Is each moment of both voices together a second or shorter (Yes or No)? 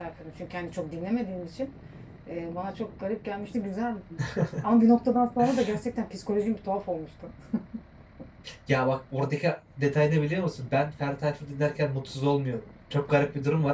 Yes